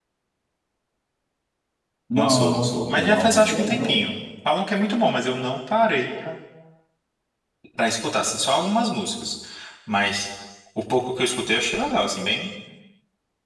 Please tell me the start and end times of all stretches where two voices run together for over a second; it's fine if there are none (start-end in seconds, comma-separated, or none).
2.1-4.1